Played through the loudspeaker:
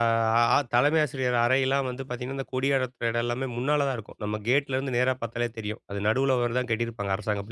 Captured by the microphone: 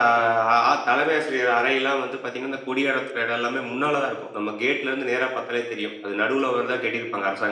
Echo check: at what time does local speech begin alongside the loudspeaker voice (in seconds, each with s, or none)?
none